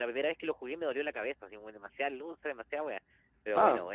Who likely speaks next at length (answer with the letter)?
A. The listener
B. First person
A